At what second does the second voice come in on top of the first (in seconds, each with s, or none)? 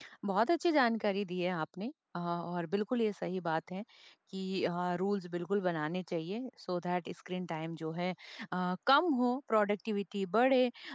none